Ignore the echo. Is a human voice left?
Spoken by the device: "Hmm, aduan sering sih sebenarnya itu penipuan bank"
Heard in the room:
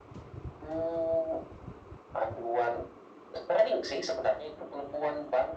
No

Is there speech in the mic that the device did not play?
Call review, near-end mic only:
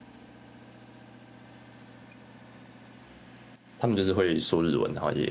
Yes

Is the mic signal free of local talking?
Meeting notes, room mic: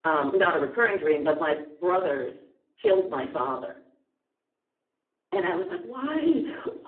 Yes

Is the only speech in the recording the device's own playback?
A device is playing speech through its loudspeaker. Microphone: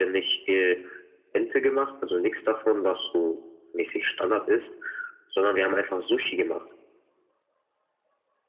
Yes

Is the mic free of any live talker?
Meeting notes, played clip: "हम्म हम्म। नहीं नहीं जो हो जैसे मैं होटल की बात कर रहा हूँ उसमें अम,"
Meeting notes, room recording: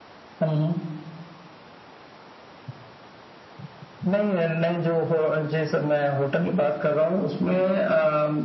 Yes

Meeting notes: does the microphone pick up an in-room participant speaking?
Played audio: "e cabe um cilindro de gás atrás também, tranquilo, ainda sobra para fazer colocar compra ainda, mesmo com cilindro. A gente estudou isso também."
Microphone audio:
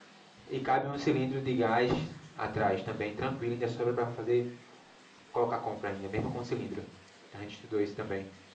No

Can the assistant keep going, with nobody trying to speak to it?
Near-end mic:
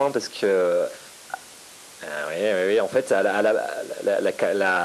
Yes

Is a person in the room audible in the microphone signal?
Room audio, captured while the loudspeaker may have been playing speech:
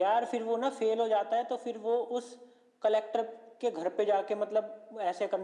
No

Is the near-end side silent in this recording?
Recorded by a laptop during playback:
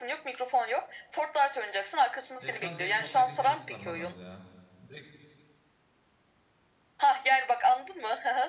No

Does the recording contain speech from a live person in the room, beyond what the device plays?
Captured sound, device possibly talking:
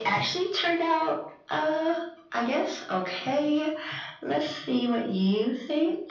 No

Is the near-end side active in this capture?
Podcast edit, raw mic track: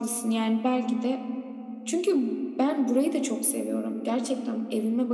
No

